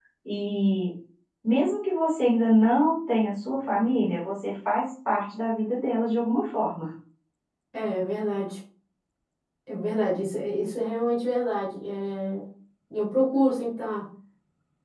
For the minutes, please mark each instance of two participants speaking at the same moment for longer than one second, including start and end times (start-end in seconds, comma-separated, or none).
none